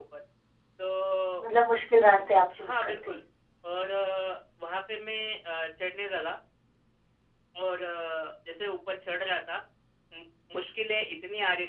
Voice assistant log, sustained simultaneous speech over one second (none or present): none